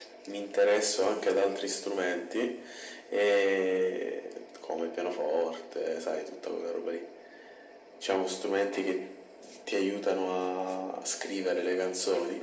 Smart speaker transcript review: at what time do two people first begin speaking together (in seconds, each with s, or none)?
none